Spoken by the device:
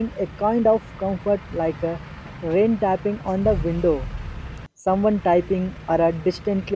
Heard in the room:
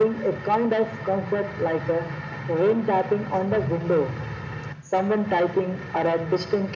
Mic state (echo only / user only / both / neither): echo only